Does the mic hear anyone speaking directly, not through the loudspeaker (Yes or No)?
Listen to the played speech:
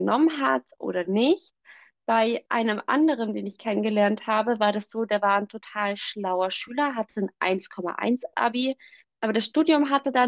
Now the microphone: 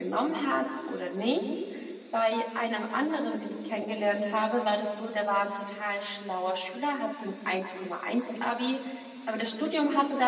No